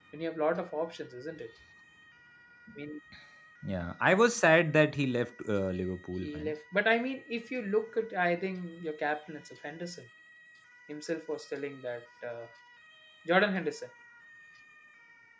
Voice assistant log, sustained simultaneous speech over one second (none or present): none